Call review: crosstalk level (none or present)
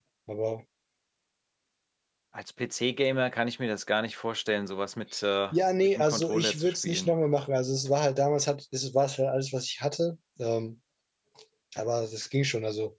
present